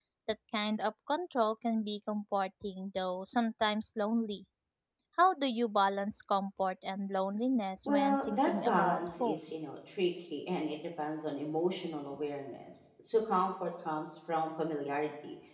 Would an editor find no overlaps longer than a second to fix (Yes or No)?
No